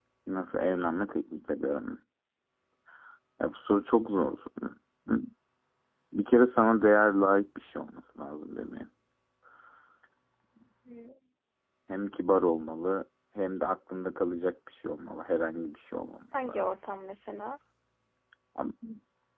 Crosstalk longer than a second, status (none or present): none